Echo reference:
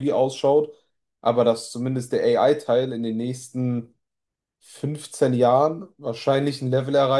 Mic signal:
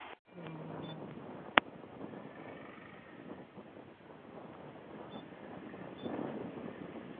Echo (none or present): none